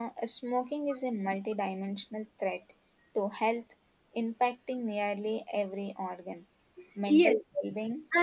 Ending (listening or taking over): taking over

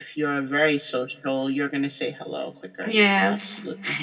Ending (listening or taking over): taking over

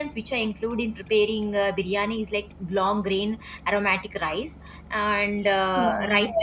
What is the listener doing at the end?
listening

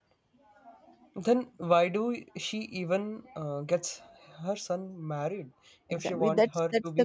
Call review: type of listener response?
taking over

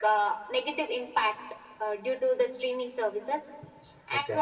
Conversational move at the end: listening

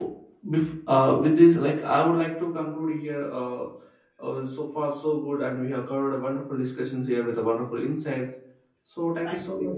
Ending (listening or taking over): listening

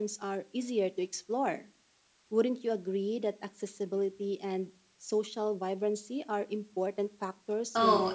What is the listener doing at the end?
taking over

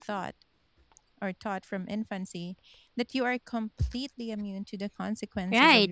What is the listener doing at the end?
taking over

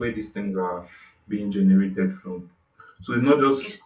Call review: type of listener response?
listening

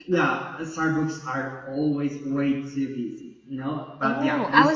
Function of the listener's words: taking over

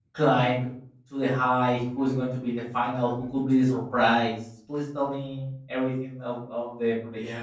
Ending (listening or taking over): taking over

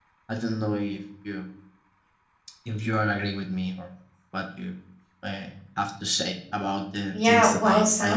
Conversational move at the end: taking over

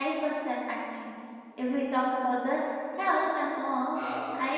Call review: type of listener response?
listening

